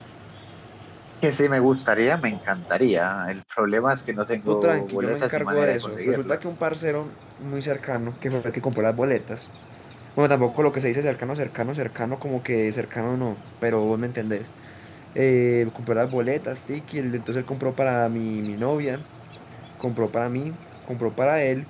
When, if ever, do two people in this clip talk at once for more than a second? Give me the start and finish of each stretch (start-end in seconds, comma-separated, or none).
4.5-6.4